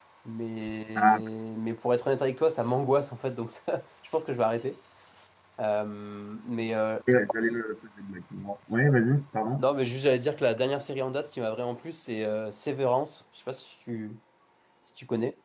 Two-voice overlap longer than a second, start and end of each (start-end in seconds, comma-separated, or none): none